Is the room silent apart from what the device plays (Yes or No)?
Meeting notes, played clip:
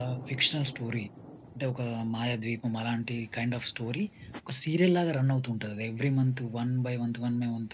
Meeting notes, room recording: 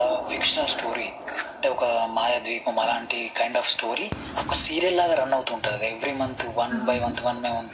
No